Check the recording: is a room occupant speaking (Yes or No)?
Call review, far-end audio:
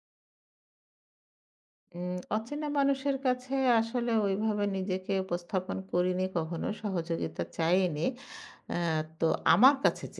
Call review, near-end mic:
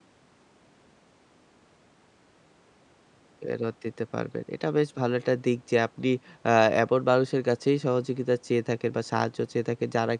Yes